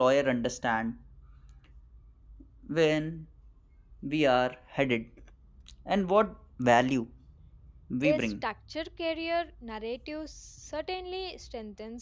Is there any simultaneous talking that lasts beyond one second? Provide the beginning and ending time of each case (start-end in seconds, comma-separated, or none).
none